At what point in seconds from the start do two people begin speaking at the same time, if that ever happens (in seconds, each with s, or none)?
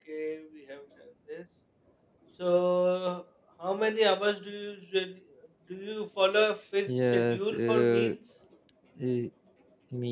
6.9 s